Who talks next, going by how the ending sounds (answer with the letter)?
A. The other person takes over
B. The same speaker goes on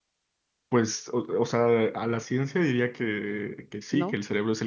B